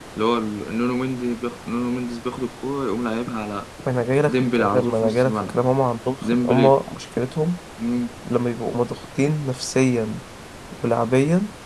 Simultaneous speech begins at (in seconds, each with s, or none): 4.2 s